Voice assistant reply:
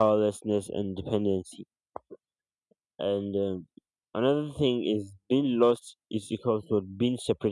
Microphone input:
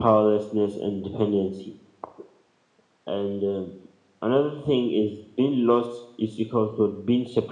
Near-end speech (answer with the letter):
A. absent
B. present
A